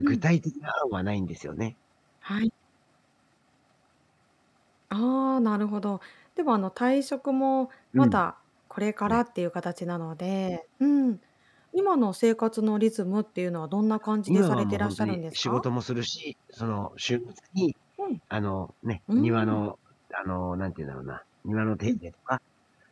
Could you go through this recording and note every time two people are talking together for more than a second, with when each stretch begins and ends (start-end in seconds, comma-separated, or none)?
14.3-15.6